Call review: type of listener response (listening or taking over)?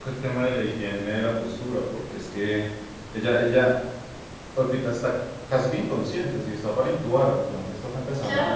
taking over